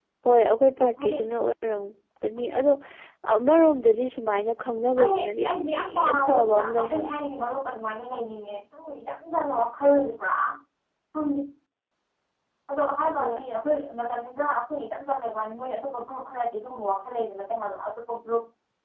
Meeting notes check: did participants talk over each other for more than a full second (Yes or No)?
Yes